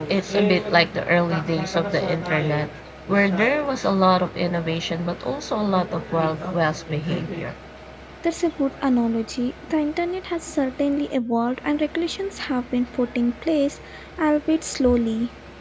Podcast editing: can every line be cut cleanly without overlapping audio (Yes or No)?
Yes